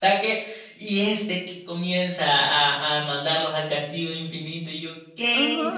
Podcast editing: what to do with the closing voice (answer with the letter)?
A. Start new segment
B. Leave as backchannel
A